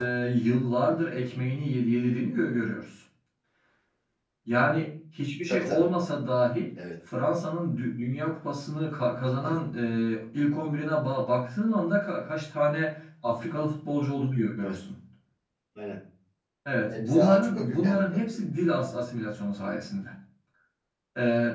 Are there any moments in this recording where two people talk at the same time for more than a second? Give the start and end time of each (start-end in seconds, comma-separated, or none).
16.9-18.2